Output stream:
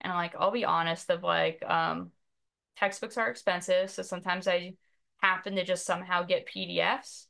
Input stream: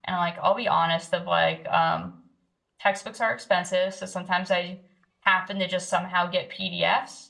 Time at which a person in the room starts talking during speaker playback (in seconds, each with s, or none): none